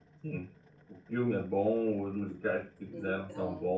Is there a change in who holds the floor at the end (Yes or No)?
No